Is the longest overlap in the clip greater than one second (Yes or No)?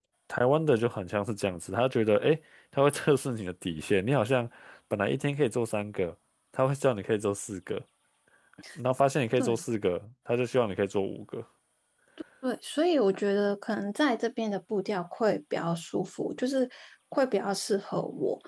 No